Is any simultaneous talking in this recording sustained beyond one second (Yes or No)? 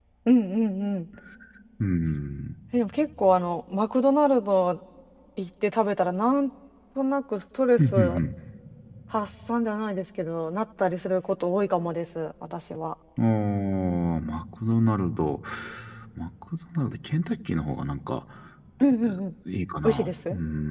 No